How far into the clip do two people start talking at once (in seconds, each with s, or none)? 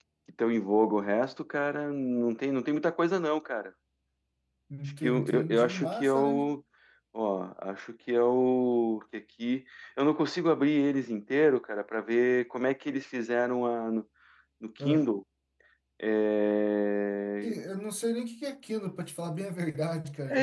5.0 s